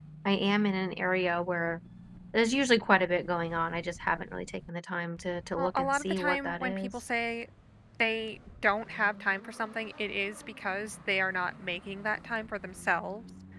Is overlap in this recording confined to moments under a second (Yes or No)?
No